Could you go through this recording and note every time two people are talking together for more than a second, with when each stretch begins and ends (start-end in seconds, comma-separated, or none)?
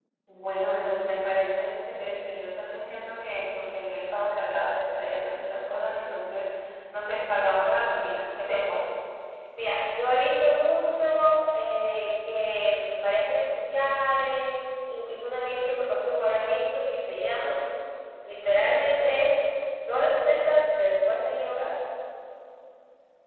none